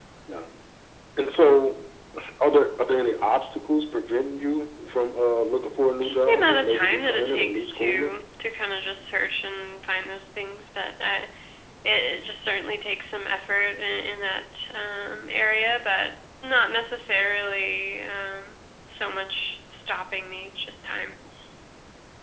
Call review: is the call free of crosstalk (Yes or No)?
No